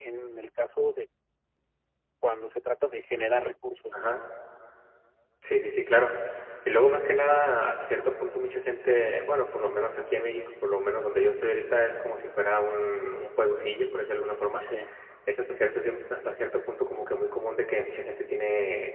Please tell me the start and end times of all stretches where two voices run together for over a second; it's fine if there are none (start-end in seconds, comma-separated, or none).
none